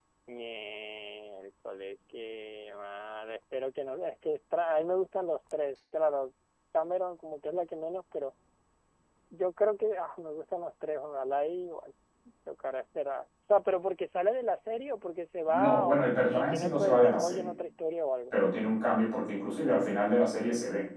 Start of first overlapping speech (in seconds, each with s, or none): 15.5 s